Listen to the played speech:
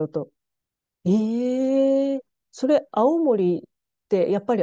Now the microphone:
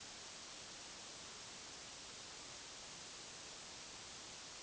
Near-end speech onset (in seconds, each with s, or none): none